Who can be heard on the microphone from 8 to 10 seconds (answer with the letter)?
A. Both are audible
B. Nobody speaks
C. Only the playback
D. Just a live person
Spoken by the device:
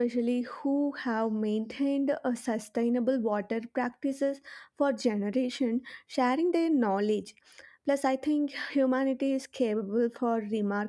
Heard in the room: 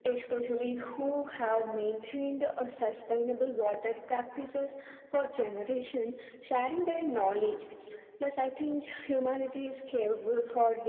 C